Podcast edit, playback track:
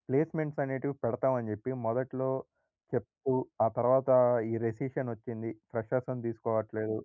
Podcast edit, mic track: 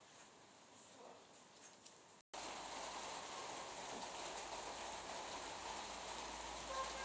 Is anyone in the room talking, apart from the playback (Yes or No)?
No